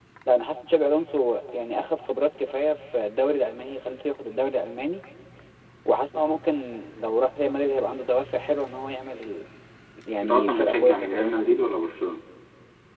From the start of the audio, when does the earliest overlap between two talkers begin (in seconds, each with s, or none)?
10.2 s